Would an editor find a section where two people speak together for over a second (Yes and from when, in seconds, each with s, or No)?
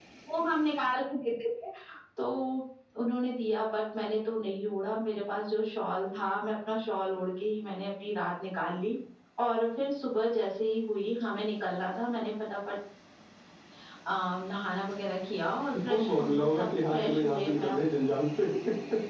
Yes, from 15.9 s